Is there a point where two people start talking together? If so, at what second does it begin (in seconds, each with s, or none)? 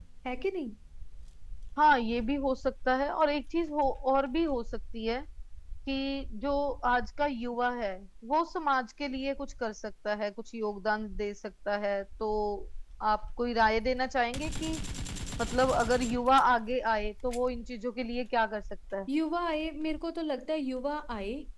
none